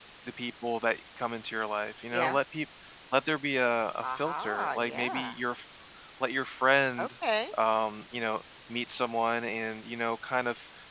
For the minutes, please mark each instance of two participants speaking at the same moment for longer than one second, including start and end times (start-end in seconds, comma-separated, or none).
4.1-5.4